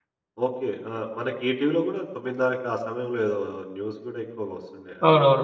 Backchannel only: No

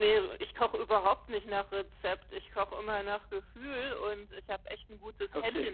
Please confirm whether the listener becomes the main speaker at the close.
No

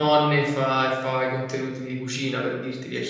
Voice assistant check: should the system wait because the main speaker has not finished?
No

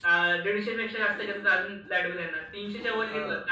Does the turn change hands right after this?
No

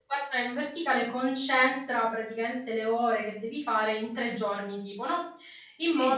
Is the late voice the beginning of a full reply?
No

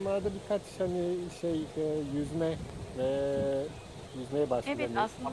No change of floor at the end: No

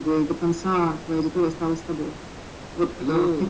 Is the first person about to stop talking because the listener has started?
No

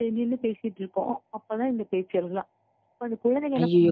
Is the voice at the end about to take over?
Yes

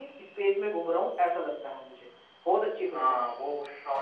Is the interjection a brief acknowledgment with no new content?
No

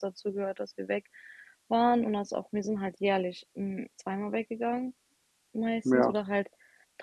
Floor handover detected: No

